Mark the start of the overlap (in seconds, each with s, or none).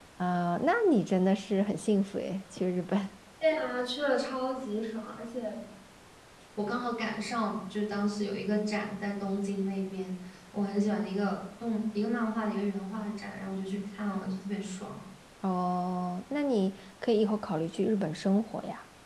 none